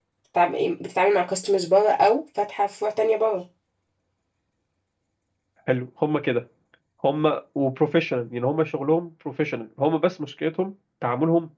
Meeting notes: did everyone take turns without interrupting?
Yes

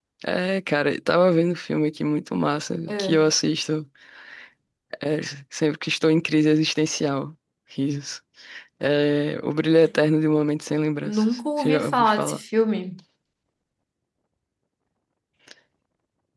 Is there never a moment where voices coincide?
No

